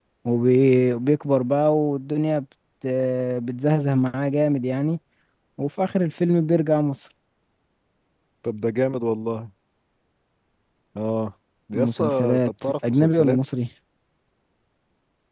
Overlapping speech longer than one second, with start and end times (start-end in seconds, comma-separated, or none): 11.7-13.4